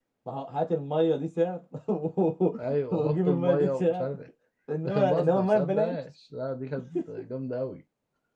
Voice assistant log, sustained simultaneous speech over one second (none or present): present